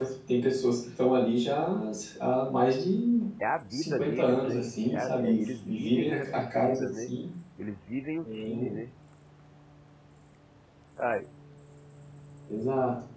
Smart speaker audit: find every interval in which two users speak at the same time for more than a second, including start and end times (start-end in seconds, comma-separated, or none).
3.7-7.1